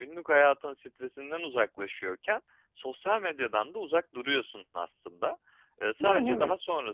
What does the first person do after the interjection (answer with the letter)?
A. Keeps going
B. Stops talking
A